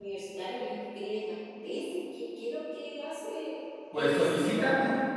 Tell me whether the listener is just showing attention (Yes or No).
No